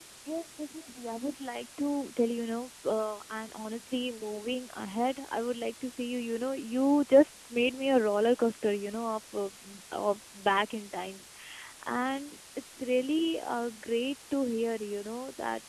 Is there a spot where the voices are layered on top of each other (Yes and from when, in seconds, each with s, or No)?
No